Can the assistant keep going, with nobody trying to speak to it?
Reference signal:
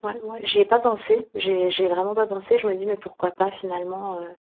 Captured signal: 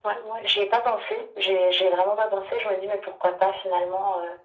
Yes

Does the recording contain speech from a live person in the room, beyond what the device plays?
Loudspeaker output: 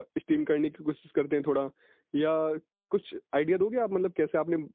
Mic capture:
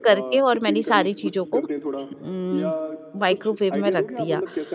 Yes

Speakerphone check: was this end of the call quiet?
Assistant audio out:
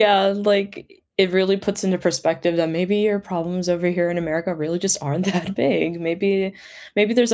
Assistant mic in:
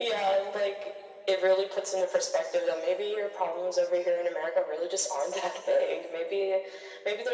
Yes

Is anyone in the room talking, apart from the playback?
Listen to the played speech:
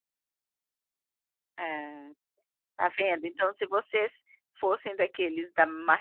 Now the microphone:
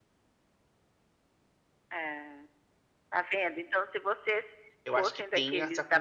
Yes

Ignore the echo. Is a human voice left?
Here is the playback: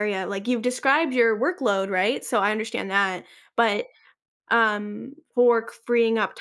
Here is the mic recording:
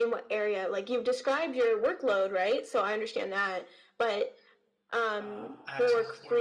Yes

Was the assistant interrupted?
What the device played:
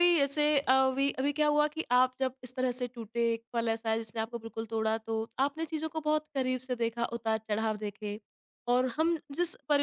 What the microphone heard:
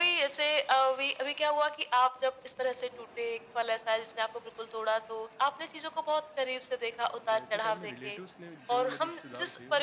Yes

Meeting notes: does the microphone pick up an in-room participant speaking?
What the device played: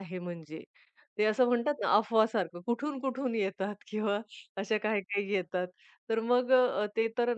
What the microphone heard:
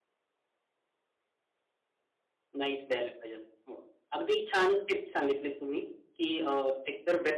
Yes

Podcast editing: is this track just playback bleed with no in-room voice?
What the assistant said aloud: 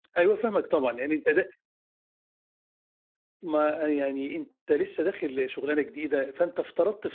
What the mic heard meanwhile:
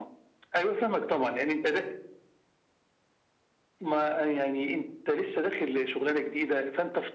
Yes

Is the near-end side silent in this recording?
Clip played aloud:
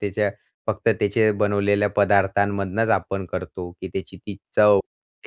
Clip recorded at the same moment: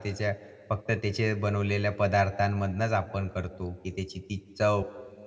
Yes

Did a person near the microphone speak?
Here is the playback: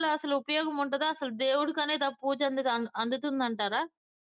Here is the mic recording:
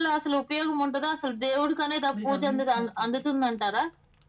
Yes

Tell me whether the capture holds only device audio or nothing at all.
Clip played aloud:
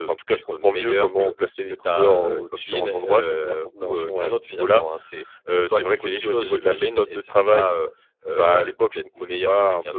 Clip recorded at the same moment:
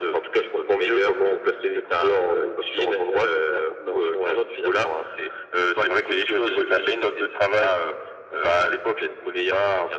Yes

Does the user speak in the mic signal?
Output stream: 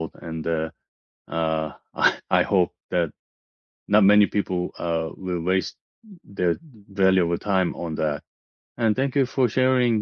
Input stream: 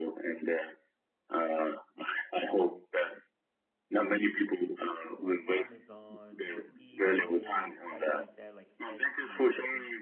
Yes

